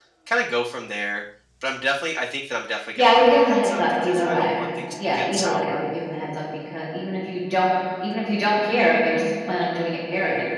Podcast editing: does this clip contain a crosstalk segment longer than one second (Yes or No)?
Yes